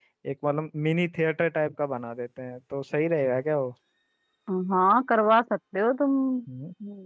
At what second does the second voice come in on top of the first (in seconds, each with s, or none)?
none